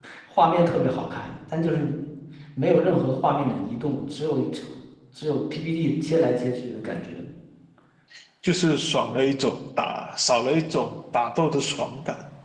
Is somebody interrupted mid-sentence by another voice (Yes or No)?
No